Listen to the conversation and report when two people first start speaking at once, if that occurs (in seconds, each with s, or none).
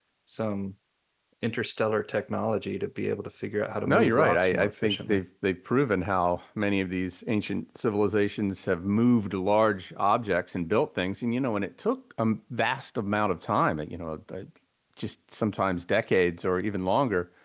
3.9 s